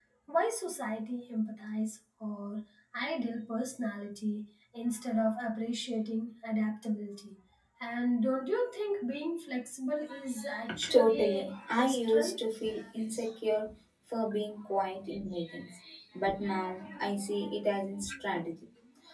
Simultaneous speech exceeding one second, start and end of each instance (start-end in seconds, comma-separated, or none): 10.9-12.5